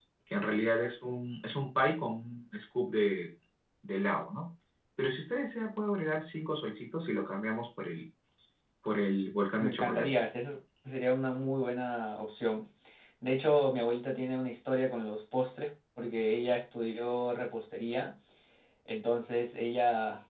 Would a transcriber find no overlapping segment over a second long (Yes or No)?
Yes